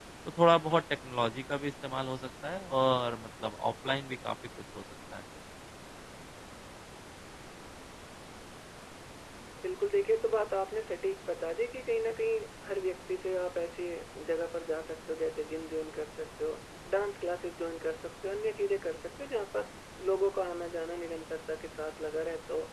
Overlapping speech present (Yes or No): No